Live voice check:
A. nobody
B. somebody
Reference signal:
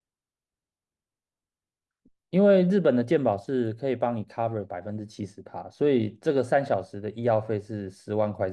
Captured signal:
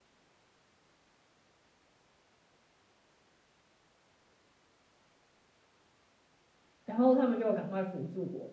B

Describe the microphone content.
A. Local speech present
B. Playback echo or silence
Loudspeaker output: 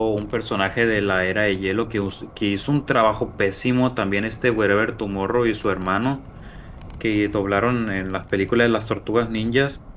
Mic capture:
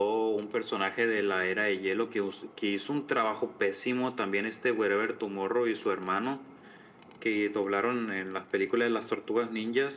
B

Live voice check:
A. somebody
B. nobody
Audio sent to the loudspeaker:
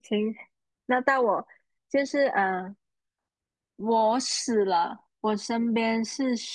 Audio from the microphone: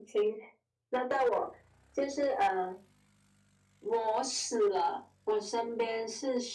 B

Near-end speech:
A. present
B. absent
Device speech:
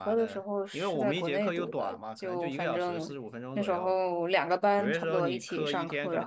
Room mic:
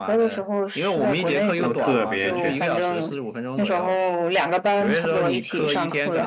A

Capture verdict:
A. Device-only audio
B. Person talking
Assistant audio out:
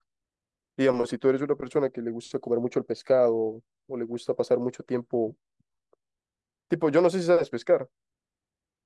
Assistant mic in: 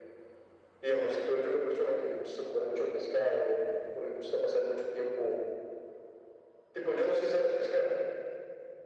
A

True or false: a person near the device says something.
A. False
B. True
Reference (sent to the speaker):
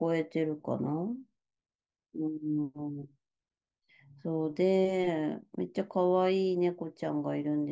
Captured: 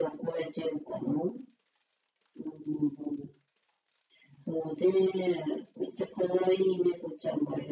A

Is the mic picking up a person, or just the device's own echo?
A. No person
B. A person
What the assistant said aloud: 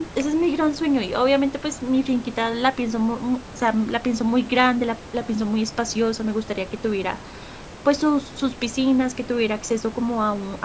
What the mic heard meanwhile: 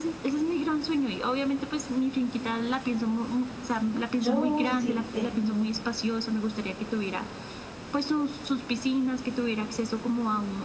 B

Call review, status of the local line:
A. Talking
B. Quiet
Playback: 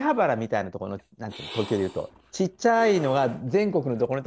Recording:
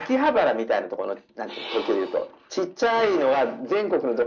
B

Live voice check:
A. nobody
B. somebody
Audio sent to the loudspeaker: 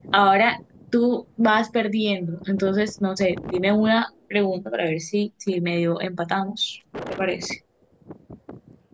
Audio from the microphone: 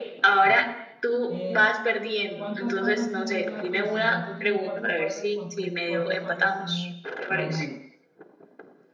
B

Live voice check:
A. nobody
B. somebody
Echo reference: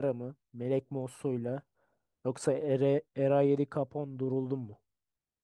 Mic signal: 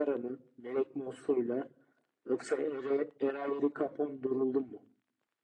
A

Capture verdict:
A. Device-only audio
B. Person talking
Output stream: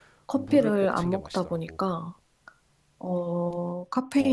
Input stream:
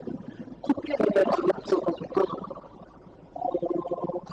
A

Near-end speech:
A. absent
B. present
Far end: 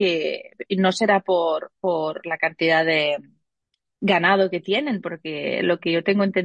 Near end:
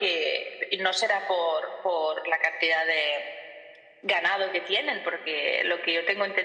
A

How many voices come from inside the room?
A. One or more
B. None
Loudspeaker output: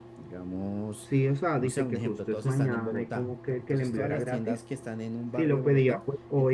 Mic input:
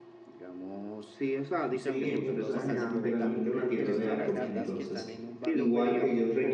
A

